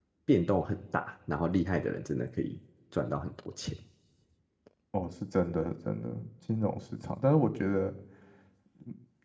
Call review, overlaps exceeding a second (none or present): none